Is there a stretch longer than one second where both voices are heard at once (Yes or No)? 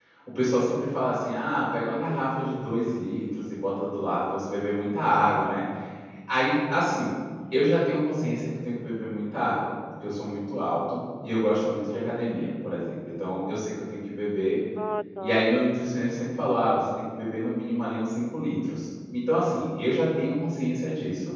No